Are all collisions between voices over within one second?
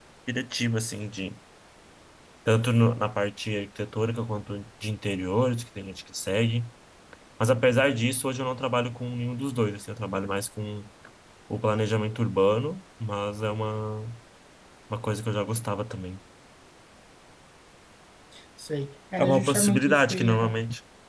No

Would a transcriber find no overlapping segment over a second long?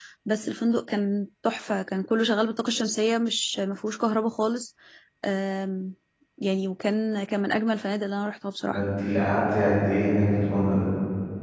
Yes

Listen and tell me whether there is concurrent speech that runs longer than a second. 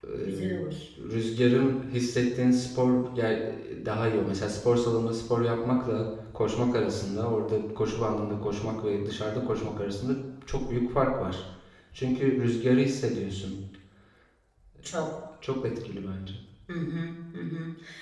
No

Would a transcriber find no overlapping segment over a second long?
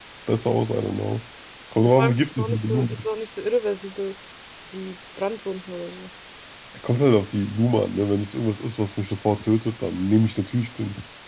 No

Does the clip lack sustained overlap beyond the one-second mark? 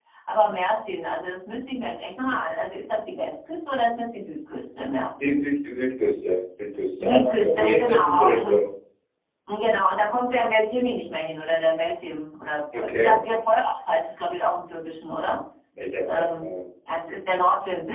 No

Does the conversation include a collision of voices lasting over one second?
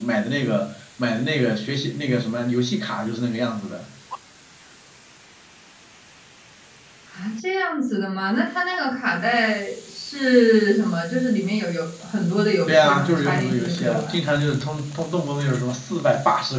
Yes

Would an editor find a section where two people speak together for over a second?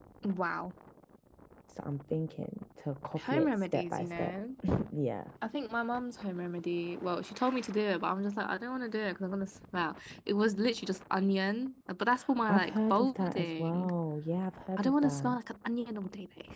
Yes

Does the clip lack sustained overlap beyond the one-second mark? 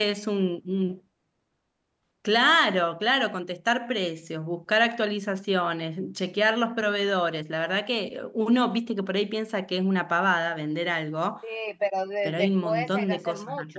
No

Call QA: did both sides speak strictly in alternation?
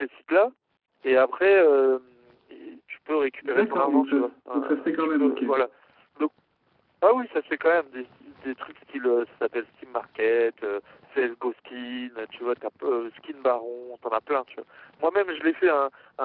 No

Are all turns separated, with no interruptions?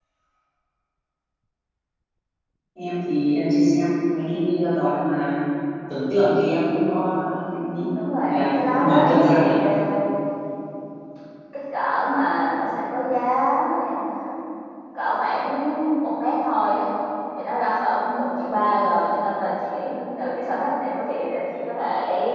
No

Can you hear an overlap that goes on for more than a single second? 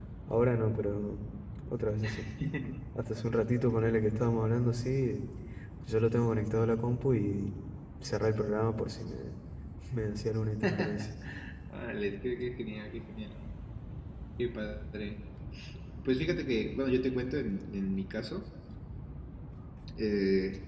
No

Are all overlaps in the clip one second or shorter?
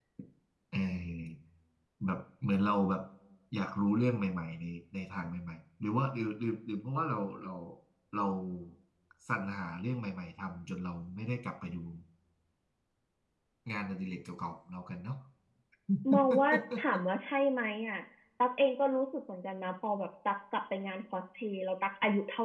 Yes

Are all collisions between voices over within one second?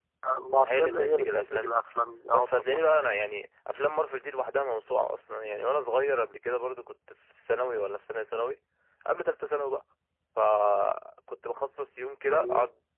No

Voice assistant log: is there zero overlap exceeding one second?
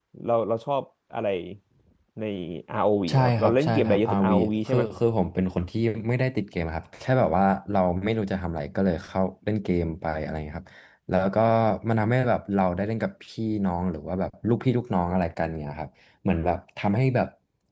No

